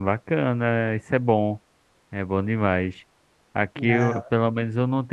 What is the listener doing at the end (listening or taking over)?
listening